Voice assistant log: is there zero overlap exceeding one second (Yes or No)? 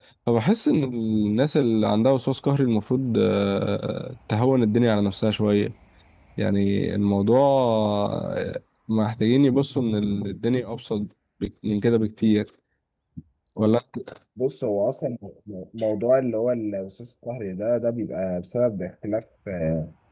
Yes